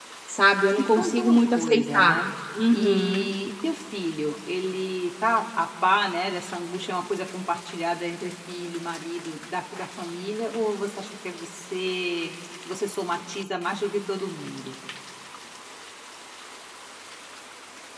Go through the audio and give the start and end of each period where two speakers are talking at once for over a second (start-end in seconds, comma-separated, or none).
0.8-2.1